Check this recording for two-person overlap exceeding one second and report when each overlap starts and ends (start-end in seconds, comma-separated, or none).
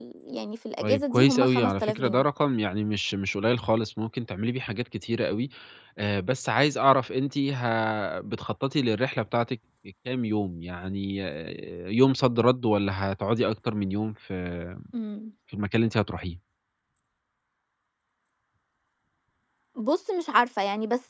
0.8-2.2